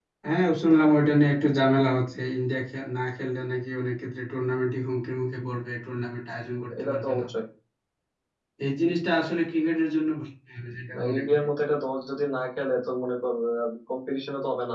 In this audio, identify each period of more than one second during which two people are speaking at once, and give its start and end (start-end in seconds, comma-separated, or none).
none